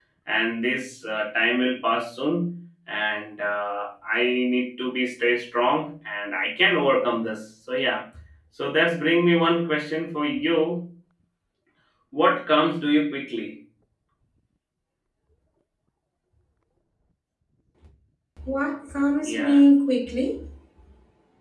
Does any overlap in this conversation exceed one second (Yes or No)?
No